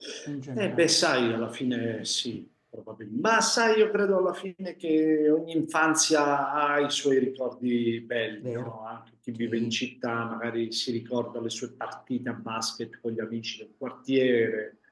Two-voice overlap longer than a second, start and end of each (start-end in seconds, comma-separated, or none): none